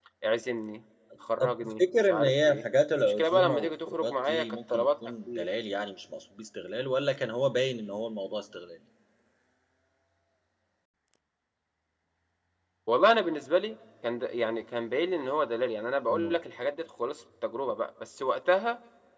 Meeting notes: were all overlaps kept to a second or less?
No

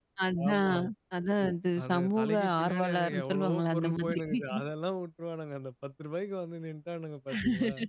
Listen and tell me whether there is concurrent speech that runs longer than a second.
Yes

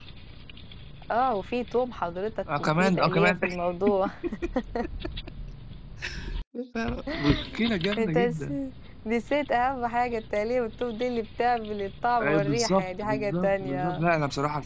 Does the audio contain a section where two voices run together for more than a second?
Yes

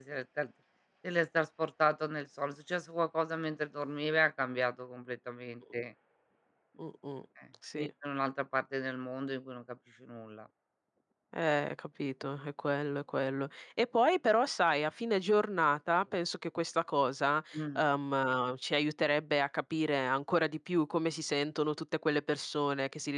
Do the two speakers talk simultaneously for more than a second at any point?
No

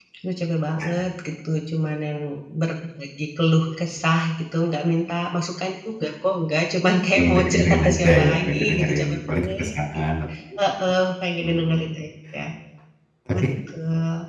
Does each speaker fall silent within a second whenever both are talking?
No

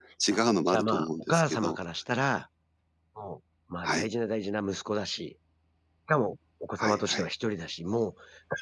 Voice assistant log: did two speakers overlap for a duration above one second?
Yes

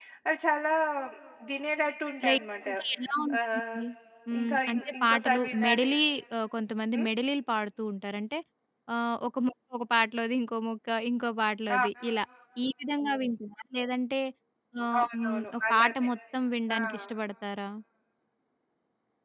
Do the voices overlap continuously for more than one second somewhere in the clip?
Yes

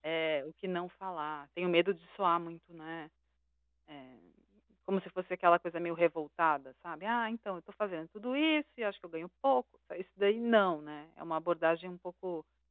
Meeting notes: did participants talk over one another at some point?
No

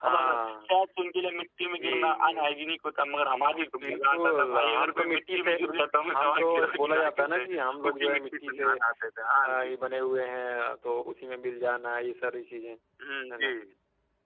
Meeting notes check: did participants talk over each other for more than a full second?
Yes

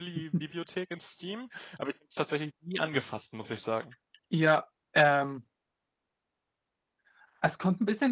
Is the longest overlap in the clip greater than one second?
No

